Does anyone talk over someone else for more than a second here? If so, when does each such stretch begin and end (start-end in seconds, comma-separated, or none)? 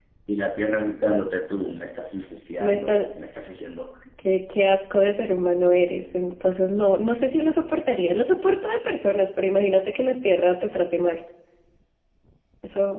none